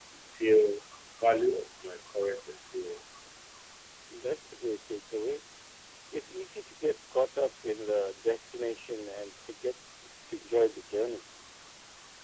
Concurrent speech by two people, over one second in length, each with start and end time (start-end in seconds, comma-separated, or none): none